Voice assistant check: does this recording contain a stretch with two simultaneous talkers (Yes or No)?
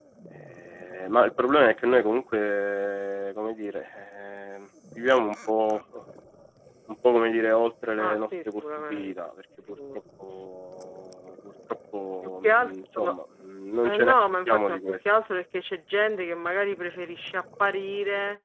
Yes